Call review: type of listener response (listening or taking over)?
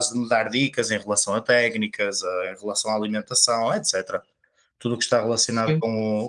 listening